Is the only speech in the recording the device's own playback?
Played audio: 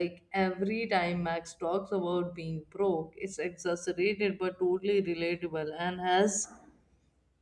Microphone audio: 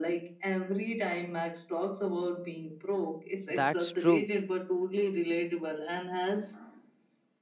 No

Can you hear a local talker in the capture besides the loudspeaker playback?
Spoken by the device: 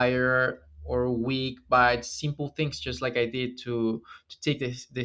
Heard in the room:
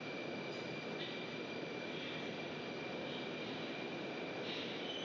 No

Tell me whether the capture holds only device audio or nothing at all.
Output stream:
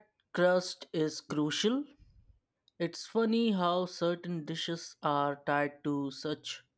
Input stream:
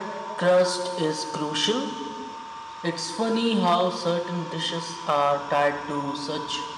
Yes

